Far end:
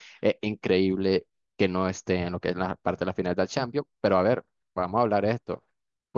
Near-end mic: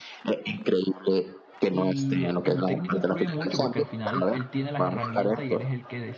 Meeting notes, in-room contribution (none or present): present